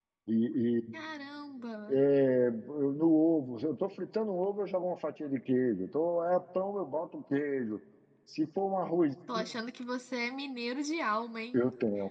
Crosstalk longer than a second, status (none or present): none